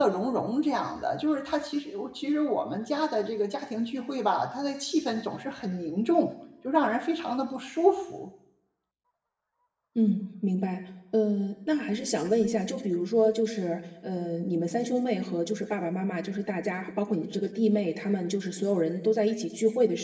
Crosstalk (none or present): none